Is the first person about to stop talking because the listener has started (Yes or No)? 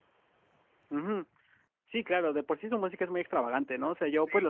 No